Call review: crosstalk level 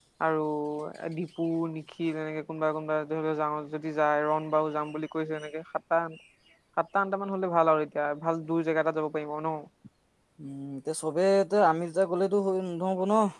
none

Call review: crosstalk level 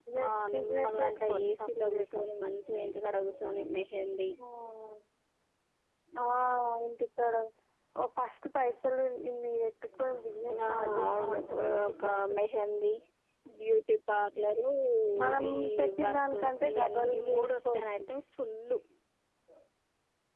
present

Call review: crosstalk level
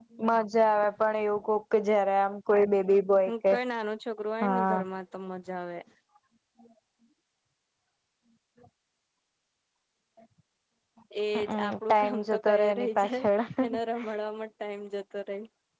present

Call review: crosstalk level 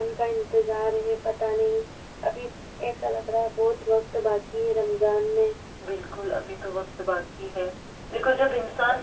none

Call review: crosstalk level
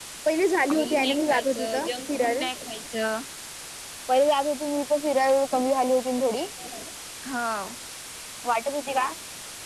present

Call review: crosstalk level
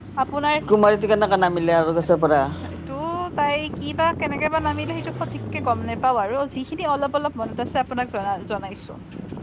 none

